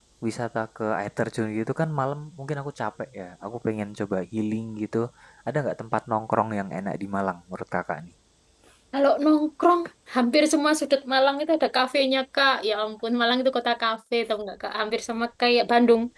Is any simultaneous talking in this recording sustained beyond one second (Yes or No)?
No